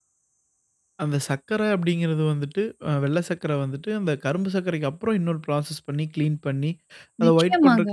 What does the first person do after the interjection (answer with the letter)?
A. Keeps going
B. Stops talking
A